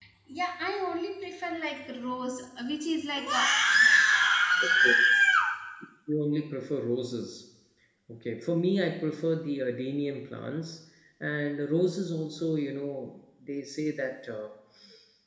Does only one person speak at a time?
Yes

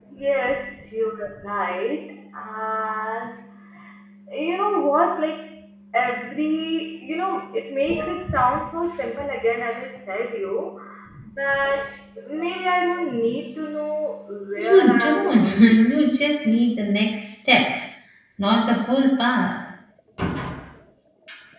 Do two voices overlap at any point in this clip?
Yes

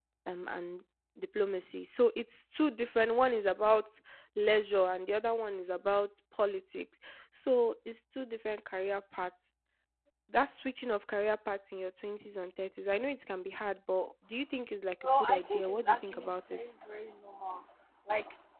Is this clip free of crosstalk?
No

